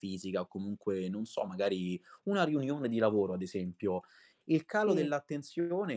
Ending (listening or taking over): listening